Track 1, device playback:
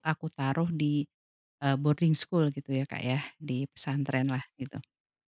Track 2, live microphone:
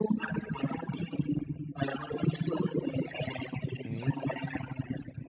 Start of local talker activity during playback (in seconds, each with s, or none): 3.7 s